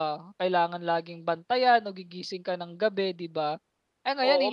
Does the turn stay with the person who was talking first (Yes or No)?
No